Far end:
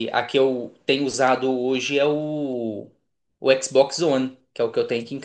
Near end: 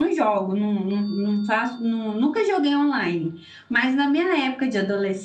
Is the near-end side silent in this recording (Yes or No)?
No